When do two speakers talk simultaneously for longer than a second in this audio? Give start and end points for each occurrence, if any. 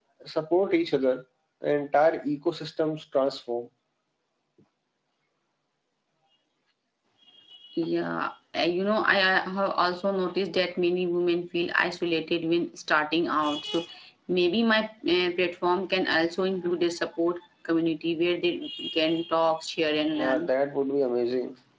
none

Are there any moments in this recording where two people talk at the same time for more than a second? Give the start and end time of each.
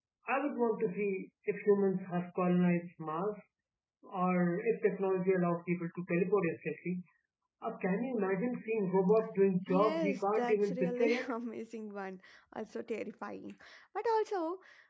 9.7-11.3

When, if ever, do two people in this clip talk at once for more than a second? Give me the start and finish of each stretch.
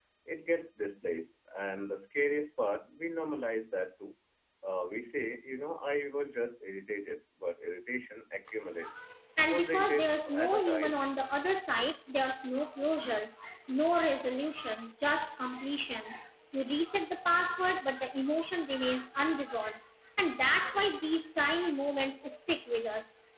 9.5-11.1

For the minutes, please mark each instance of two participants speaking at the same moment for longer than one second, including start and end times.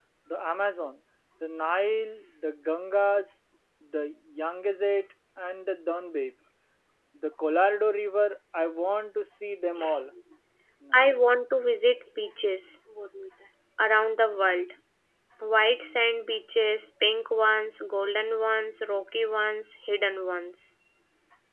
none

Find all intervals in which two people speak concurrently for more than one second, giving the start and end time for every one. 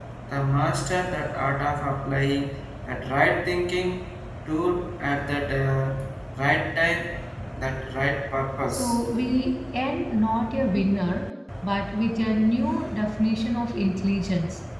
none

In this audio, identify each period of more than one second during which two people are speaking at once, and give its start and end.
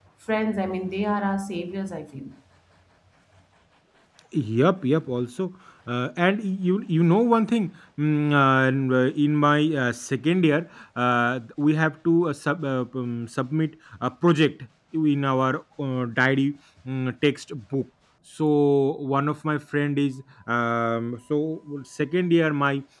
none

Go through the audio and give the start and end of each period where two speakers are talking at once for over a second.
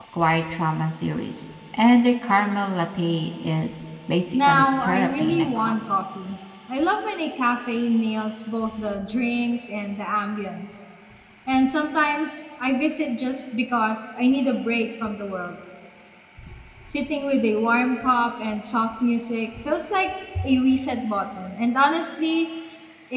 4.4-5.7

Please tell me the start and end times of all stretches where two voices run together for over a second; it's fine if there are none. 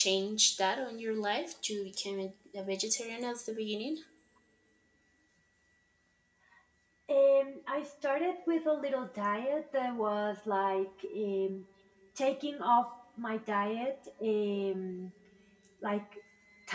none

